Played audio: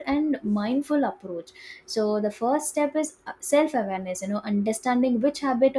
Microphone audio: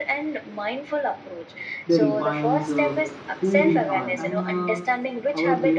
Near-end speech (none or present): present